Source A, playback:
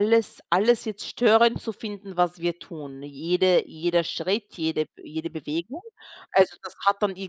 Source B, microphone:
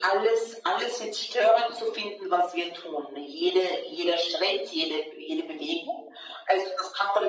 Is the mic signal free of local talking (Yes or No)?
Yes